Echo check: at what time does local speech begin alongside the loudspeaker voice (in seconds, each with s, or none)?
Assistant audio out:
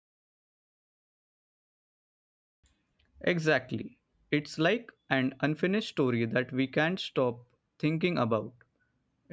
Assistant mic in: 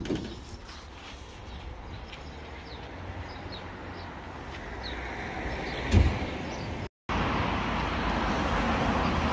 none